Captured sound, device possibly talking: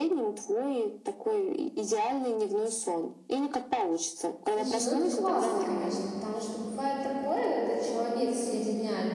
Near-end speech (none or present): present